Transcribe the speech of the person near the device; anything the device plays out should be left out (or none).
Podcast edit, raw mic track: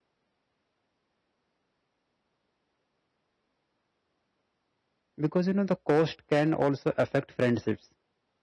Because you know the cost can also affect friendships